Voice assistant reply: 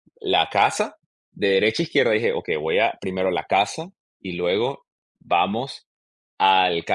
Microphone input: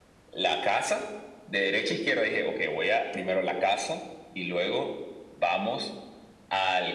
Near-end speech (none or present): none